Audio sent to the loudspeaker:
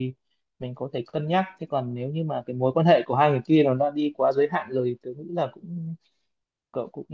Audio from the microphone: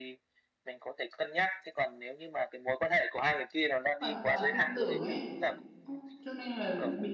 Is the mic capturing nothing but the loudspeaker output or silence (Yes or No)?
No